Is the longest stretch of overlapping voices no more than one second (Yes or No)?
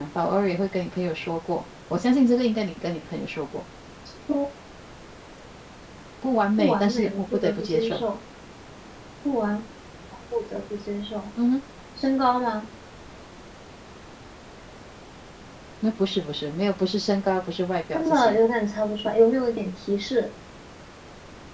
No